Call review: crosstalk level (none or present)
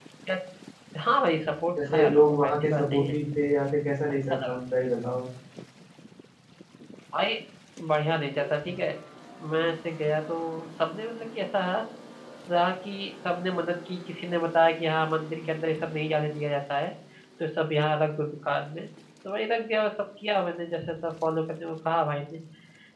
present